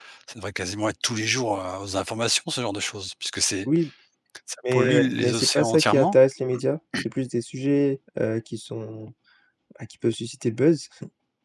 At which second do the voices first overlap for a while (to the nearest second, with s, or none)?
5 s